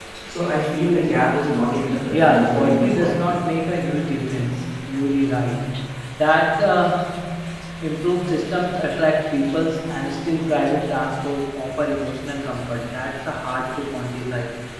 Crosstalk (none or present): present